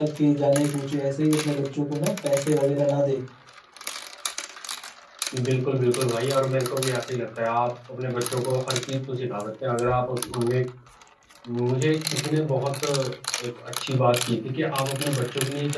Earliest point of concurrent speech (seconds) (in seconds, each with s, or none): none